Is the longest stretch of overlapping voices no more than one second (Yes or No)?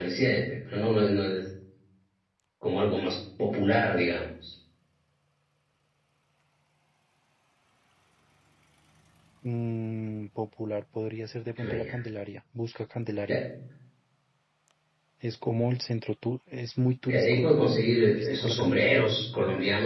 No